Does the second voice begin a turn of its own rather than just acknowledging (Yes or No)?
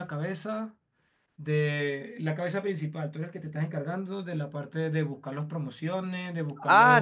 Yes